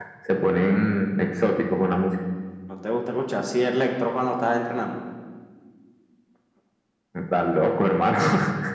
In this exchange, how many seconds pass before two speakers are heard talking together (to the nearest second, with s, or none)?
none